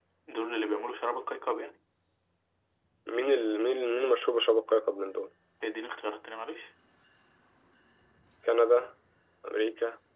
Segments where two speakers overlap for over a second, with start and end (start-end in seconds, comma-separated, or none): none